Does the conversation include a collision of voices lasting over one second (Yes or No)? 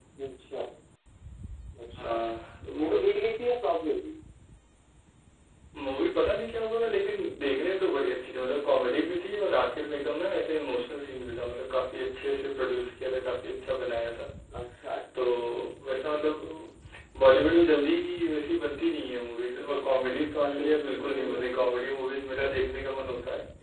Yes